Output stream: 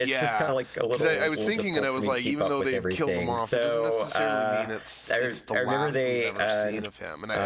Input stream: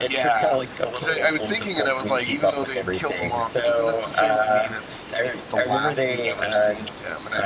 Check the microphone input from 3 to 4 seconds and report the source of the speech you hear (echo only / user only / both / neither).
echo only